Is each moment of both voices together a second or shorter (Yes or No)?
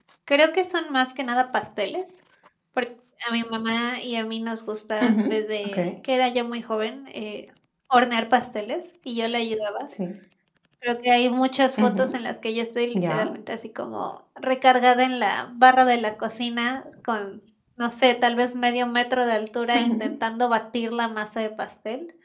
Yes